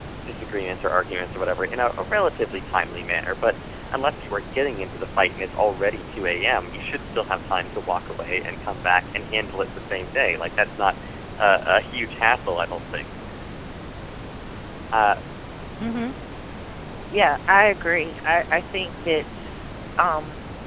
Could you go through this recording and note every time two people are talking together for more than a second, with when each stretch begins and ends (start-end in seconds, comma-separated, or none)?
none